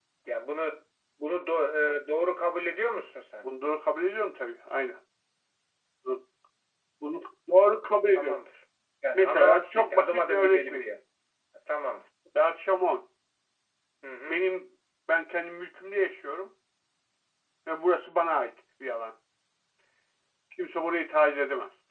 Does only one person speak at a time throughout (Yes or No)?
No